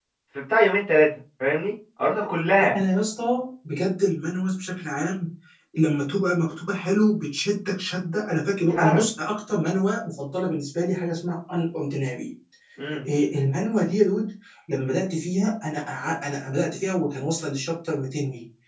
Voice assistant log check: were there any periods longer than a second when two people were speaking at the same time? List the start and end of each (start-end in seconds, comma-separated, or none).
none